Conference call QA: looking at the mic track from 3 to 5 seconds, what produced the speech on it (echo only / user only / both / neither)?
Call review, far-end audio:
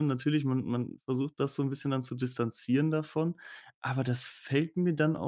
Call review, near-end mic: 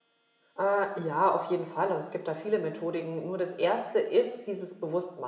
user only